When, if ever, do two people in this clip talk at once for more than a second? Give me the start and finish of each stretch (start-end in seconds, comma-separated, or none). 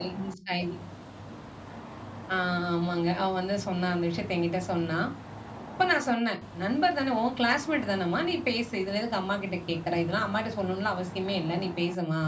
none